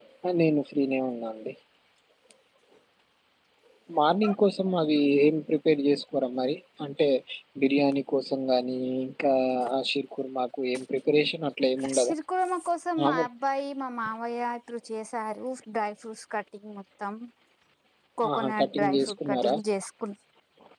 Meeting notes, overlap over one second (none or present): present